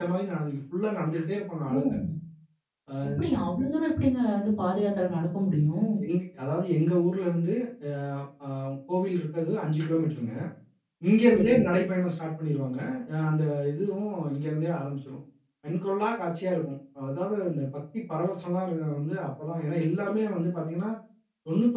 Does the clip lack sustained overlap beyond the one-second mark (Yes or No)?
Yes